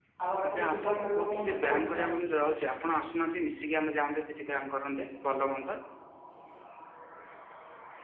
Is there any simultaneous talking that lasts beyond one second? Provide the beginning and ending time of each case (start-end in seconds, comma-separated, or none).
0.5-2.1